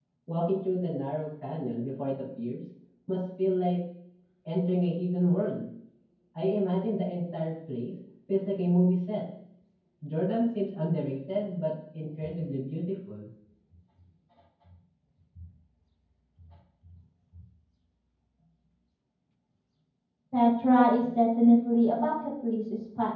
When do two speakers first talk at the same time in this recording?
none

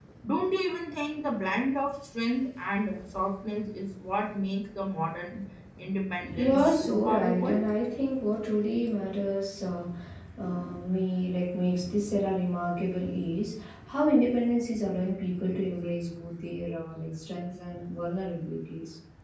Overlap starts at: 6 s

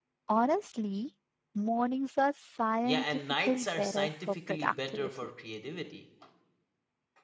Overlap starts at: 3 s

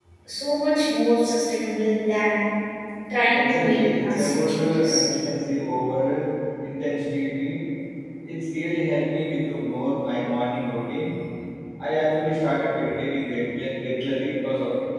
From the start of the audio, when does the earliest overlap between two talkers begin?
3 s

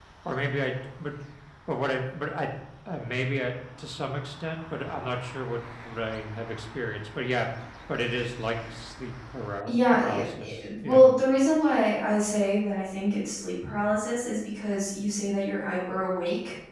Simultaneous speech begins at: 10 s

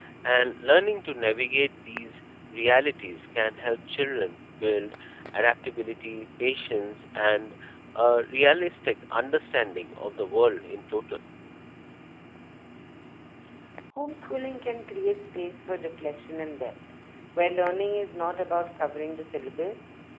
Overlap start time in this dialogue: none

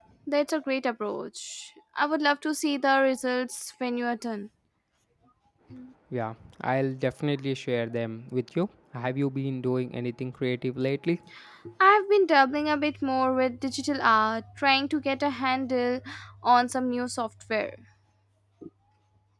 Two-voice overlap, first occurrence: none

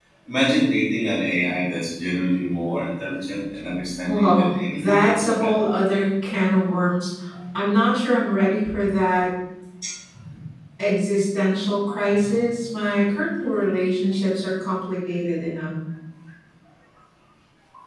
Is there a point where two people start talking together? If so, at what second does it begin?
4 s

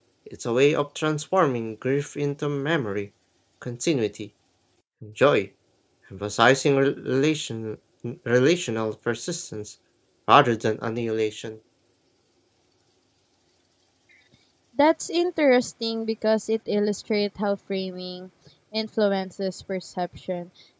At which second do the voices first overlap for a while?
none

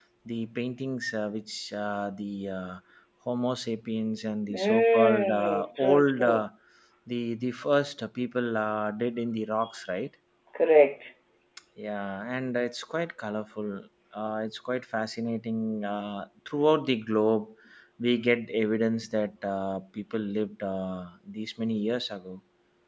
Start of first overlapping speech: 4 s

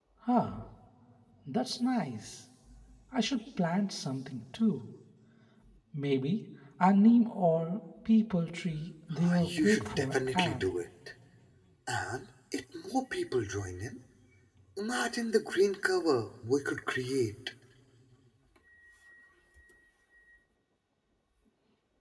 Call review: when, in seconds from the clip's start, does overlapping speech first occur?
9 s

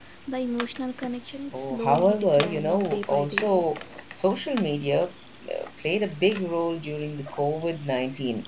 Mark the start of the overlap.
2 s

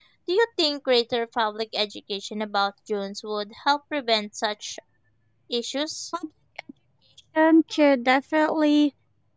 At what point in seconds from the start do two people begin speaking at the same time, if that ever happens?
none

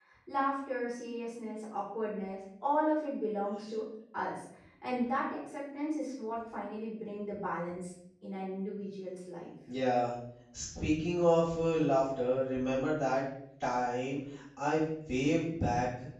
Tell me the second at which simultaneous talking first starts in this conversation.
none

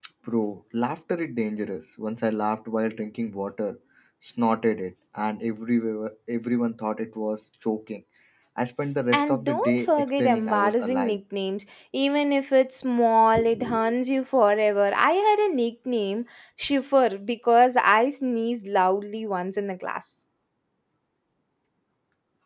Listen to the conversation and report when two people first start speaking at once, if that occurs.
9 s

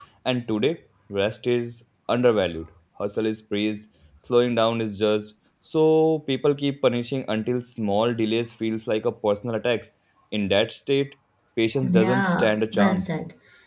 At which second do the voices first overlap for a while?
12 s

